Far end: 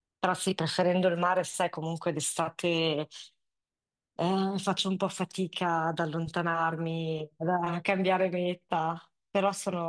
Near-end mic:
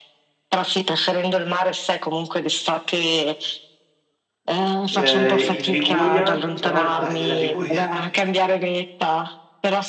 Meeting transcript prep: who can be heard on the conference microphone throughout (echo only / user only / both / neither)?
both